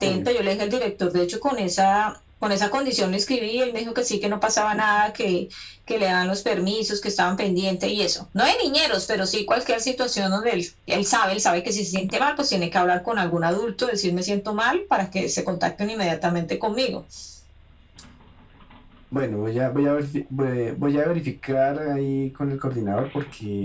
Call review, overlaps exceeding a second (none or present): none